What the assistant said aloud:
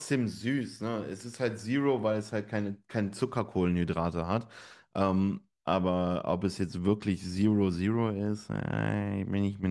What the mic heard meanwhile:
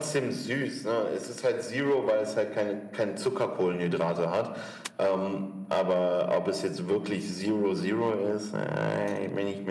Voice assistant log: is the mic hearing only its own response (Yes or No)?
Yes